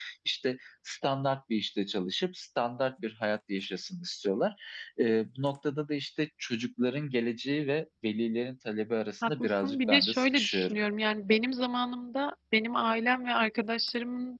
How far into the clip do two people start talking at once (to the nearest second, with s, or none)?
9 s